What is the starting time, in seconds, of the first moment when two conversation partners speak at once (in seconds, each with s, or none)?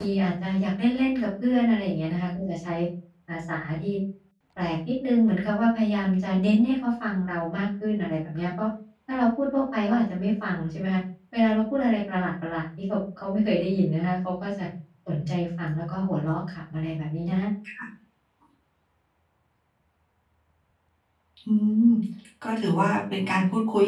none